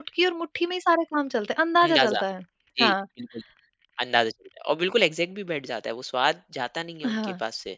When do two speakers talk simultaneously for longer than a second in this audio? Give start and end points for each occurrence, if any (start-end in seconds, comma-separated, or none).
none